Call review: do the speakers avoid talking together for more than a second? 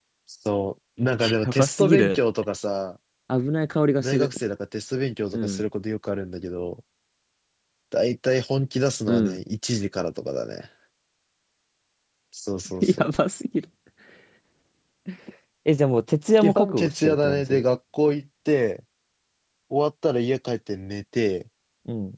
No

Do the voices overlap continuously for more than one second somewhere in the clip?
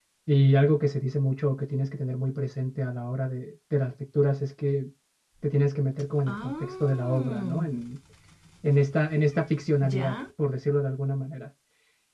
Yes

